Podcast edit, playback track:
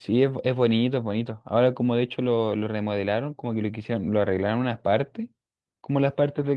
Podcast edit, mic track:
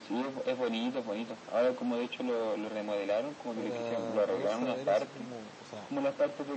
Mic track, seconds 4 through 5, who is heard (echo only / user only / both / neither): both